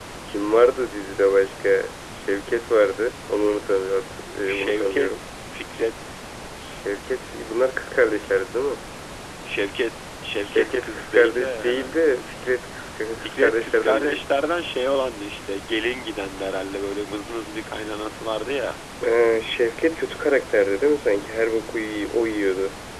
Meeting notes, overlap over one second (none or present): present